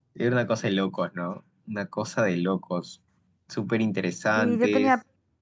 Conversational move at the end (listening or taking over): taking over